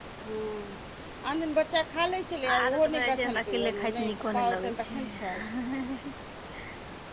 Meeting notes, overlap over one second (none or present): present